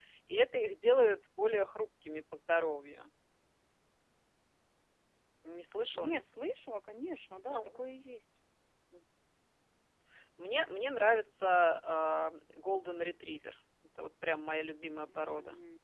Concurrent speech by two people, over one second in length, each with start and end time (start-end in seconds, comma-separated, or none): none